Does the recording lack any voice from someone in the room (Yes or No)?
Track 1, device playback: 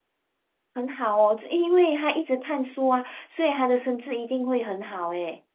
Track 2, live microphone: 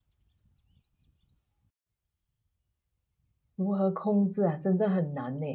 No